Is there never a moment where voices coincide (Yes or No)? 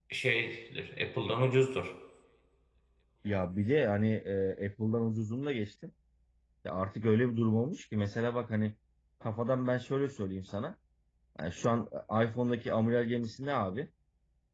Yes